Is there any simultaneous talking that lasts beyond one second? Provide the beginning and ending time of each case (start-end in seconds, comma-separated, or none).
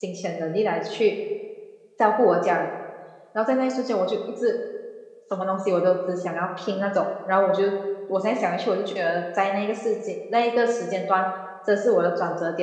none